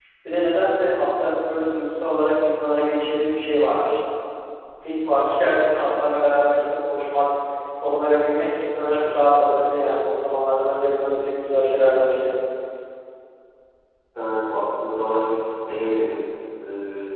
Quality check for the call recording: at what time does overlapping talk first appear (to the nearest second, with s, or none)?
none